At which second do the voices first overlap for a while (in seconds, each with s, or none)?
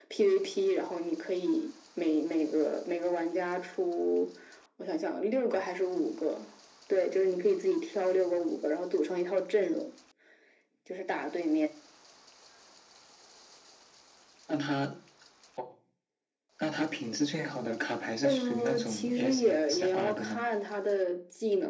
18.2 s